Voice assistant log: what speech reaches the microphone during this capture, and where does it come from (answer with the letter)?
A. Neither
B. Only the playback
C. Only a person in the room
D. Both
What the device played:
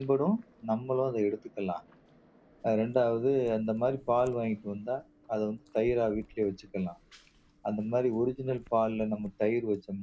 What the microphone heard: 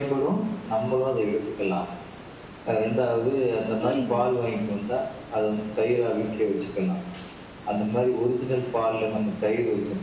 D